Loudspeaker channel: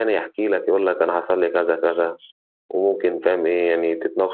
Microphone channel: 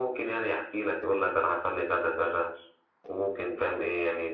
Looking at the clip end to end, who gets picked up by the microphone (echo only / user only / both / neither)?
echo only